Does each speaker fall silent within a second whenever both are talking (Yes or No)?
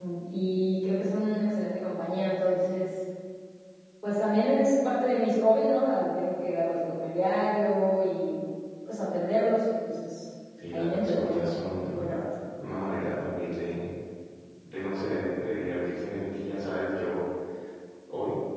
No